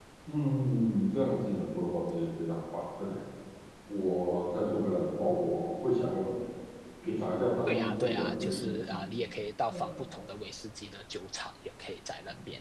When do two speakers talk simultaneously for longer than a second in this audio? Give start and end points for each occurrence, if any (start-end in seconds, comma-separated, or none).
7.7-9.0